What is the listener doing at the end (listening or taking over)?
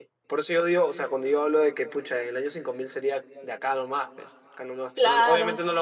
listening